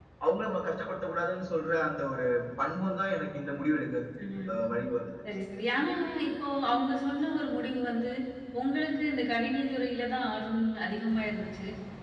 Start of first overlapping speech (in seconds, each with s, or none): none